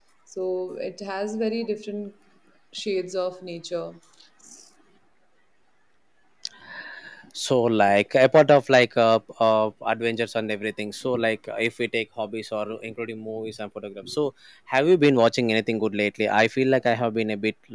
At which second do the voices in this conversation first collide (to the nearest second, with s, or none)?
none